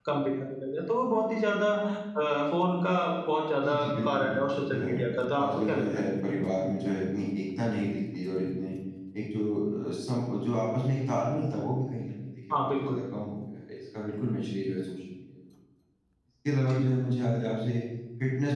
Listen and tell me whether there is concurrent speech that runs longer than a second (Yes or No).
Yes